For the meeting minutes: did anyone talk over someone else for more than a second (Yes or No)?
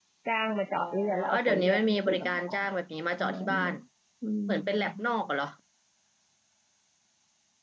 Yes